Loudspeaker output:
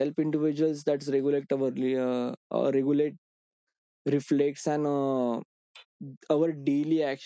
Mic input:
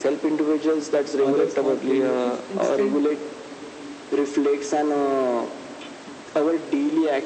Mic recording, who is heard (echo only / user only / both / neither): both